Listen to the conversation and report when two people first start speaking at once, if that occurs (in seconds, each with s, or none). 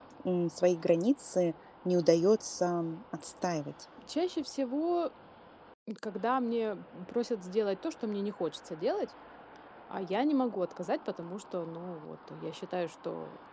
none